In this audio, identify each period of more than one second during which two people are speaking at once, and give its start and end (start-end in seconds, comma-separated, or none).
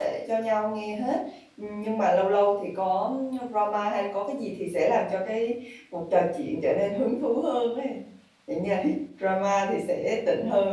none